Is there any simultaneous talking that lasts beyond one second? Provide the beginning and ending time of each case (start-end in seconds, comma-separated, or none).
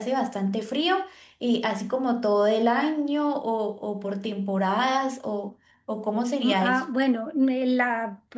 none